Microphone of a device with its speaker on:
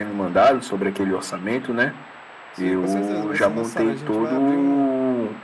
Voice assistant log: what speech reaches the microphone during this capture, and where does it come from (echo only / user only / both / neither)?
both